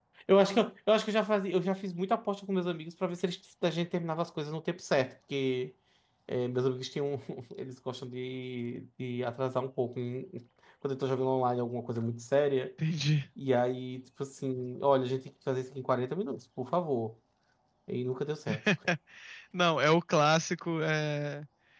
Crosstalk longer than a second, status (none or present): none